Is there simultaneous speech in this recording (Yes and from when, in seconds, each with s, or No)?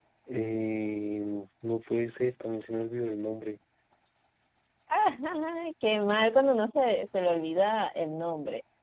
No